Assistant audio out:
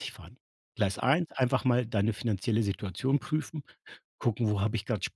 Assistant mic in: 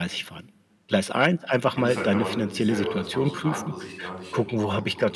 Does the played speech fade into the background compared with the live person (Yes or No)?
No